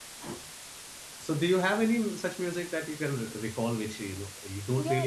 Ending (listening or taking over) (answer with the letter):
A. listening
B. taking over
B